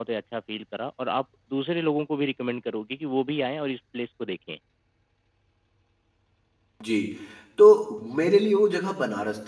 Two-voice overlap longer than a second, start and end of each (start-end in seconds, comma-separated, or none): none